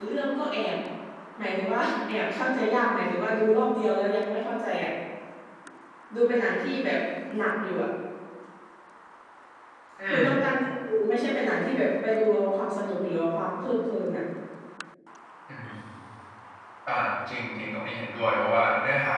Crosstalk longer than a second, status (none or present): none